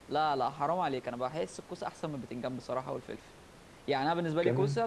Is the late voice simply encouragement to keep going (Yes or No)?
Yes